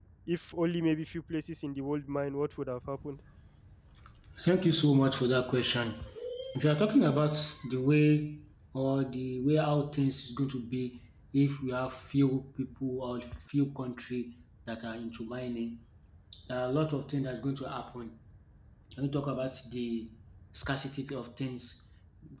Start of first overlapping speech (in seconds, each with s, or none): none